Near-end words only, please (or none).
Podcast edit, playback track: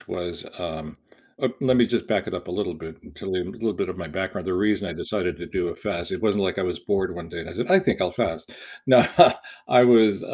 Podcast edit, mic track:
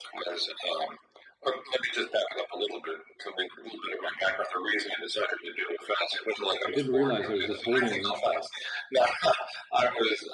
I didn't realize I was just holding the kn